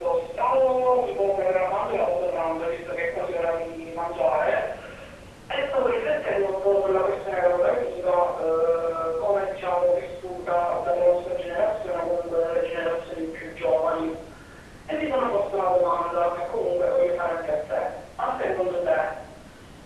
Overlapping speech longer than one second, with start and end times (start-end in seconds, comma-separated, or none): none